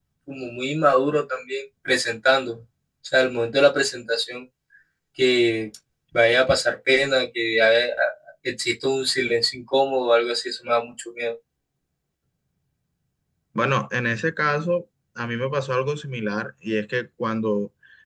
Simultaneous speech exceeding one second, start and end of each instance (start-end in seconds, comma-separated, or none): none